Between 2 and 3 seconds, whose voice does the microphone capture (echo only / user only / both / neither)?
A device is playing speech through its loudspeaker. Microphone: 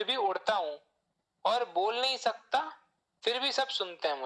echo only